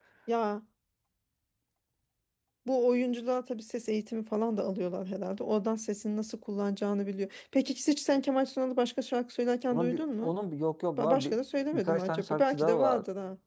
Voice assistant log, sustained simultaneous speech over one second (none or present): present